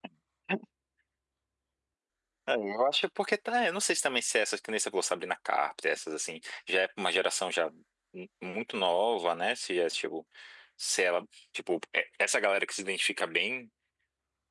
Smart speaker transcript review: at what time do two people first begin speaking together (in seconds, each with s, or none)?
none